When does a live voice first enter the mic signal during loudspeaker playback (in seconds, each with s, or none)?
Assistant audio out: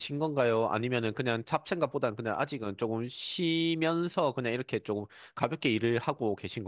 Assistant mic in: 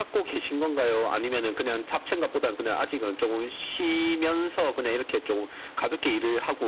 none